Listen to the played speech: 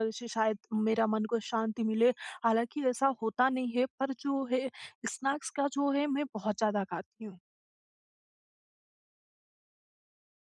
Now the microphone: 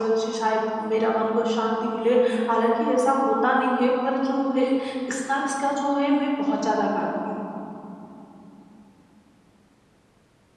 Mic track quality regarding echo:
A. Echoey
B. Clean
A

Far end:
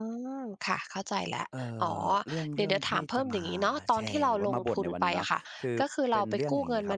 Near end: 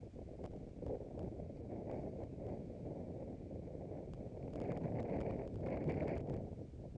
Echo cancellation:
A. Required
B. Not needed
B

